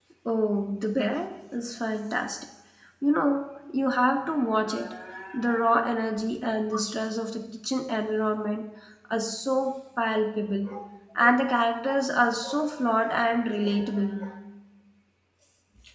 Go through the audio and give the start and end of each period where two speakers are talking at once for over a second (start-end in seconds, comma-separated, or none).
none